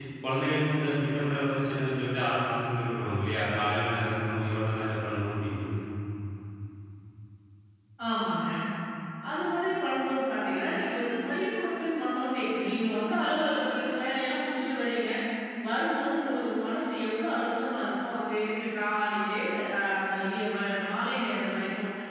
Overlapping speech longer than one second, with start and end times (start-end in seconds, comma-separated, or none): none